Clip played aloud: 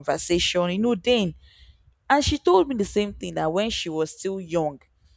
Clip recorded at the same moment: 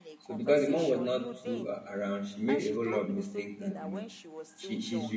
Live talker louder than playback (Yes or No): Yes